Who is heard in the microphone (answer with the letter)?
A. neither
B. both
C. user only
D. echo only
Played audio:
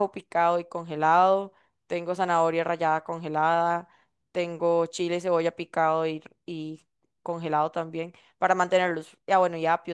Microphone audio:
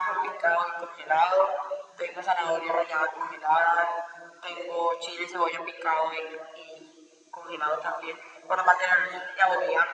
D